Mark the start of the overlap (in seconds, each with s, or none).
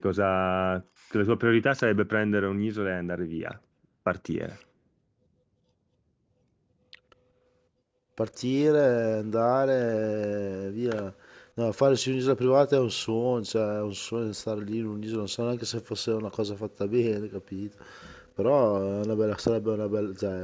none